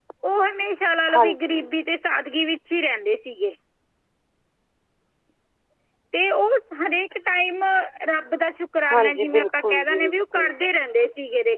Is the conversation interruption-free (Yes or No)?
No